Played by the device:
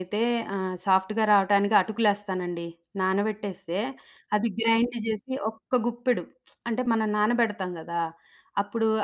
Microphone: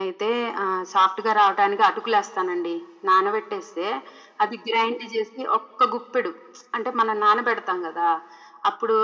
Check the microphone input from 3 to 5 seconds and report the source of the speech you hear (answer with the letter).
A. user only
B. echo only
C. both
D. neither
B